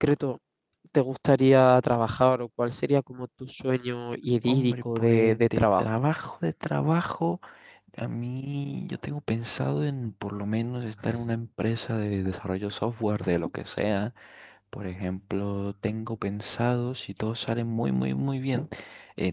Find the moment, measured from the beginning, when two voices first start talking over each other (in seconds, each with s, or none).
4.4 s